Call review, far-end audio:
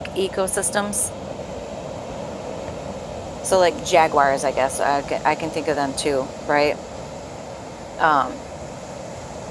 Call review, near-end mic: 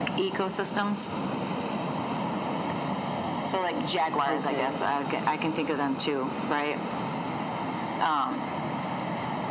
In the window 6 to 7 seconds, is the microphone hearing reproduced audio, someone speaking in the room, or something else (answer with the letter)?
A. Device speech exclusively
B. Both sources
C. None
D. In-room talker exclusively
A